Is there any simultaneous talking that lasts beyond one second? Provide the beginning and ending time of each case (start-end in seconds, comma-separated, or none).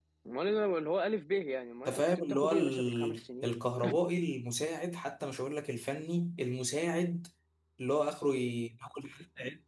1.9-3.5